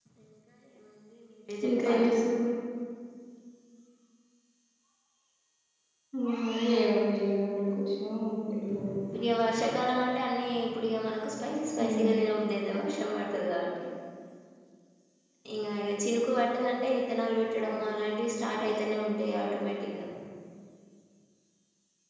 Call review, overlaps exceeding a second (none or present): none